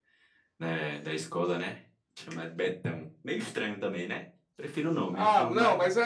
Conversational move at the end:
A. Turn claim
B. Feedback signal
A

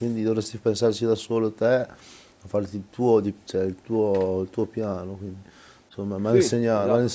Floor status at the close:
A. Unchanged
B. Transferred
A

